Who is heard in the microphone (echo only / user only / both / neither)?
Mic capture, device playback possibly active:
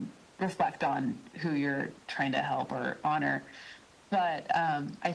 echo only